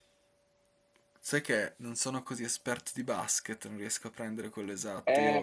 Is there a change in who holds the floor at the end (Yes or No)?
Yes